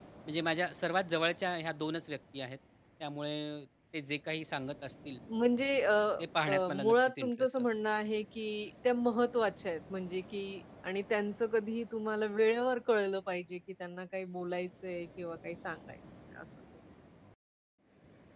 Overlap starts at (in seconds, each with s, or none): 6.5 s